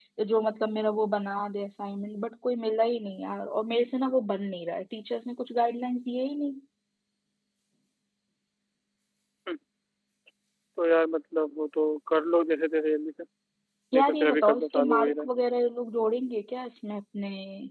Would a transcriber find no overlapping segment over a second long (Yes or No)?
No